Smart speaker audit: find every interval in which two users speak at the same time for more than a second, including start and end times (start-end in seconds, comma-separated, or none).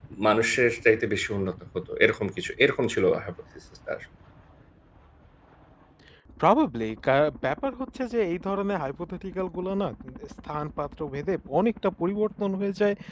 none